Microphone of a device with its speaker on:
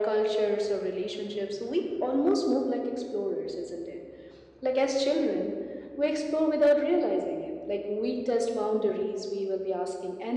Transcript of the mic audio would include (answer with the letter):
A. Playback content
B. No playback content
A